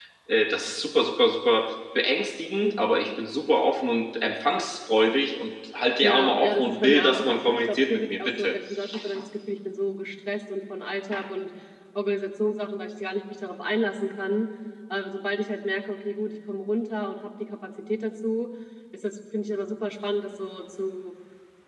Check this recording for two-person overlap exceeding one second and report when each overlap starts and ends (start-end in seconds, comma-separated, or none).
6.0-8.6